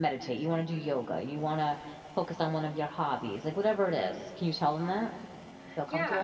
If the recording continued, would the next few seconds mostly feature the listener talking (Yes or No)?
Yes